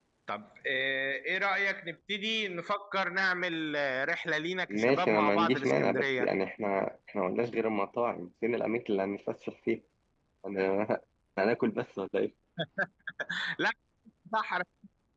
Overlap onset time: 4.7 s

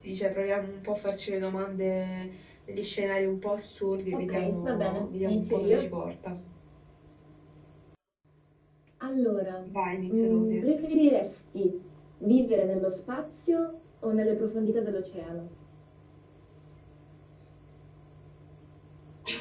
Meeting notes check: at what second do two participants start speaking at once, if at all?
4.3 s

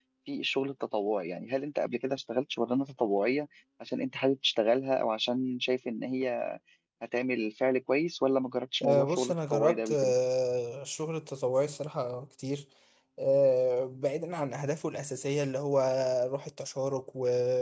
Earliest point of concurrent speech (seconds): 8.8 s

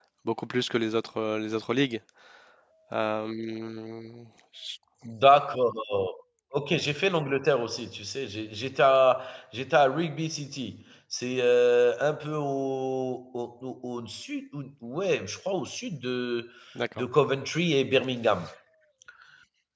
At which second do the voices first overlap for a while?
none

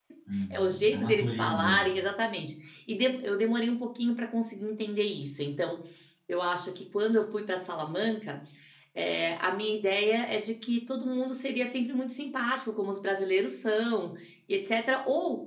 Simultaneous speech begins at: 0.5 s

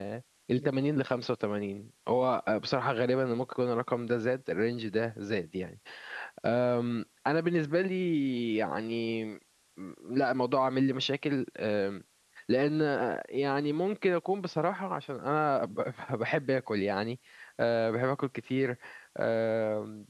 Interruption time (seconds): none

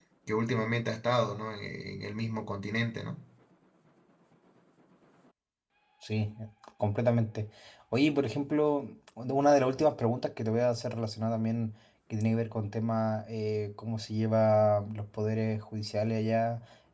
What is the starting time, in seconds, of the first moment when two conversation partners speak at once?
none

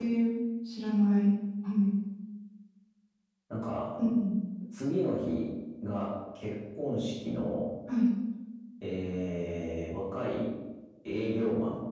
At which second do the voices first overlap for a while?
none

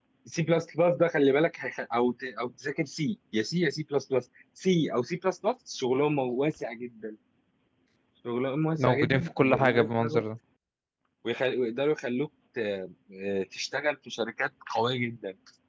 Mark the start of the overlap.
8.8 s

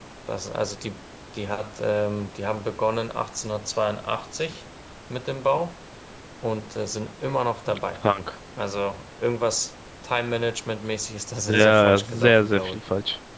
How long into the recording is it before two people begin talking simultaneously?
11.5 s

